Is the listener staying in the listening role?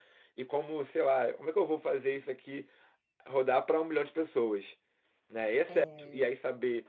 Yes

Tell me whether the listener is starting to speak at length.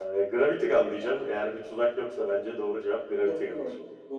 Yes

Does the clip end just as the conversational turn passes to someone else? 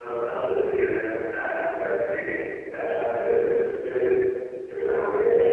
No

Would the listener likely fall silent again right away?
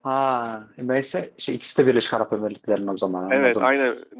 No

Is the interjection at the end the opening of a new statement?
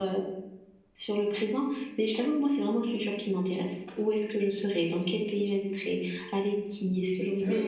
Yes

